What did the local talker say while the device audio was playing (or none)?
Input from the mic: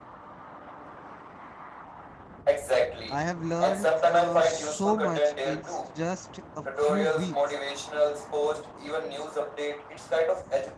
I have learned uh, so much in just a few weeks.